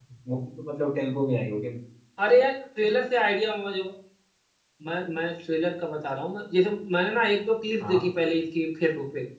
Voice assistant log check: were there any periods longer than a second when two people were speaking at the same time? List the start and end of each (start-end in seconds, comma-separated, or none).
none